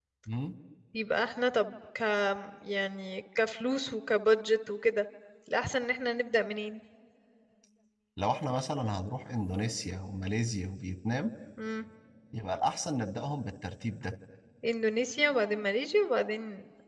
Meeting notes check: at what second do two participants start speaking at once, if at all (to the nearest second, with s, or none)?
none